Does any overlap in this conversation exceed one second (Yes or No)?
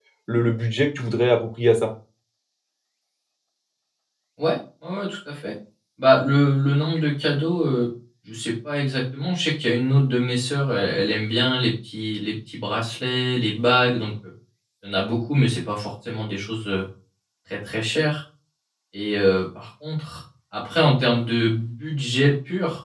No